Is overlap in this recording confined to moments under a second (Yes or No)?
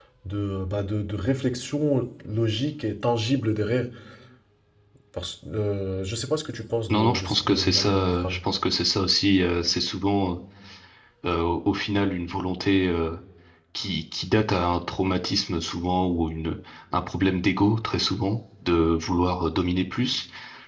No